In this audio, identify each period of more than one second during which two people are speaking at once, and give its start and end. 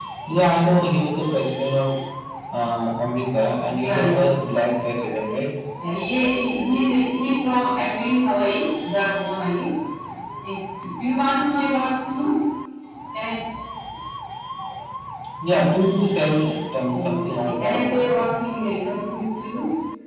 16.8-18.3

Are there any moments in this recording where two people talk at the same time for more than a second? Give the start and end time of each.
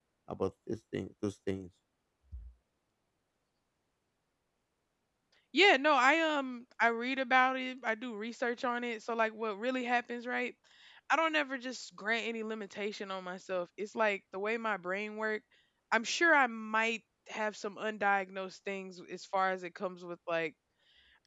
none

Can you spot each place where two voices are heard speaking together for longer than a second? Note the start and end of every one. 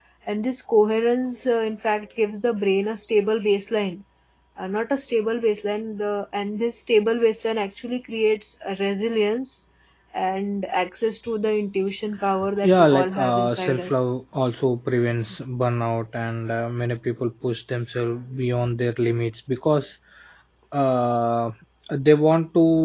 12.6-14.1

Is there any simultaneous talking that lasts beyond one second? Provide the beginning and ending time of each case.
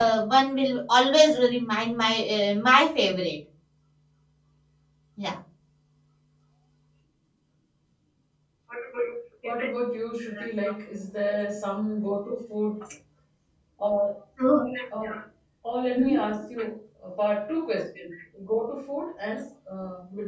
none

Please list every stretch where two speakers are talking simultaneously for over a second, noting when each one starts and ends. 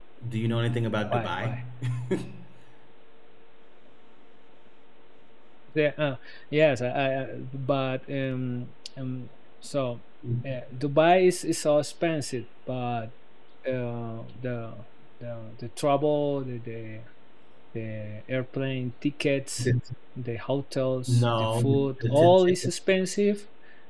21.1-22.6

